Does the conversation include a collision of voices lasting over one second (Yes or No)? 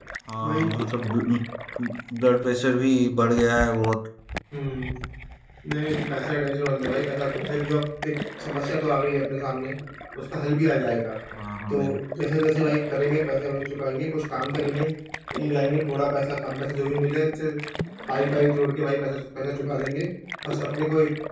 No